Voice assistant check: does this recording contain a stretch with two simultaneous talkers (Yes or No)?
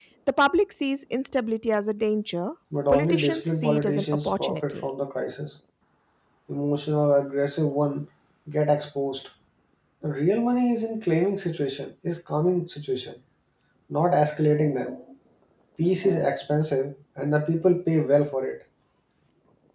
Yes